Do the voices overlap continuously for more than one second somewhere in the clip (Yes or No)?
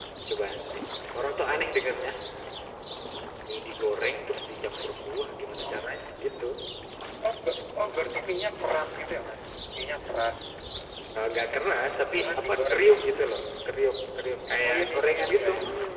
Yes